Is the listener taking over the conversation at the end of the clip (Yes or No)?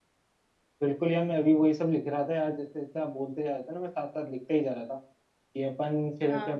No